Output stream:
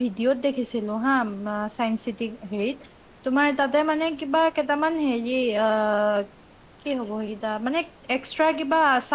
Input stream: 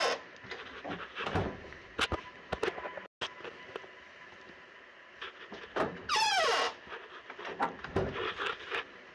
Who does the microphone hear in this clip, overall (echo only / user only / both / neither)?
neither